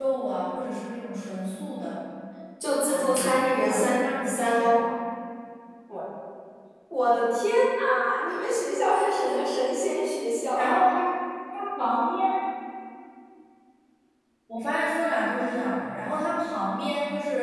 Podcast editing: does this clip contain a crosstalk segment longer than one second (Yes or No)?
Yes